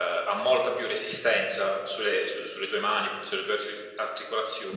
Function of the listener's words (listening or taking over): listening